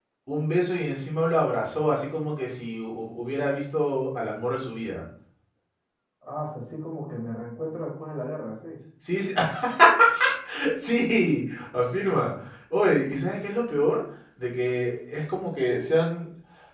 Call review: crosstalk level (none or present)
none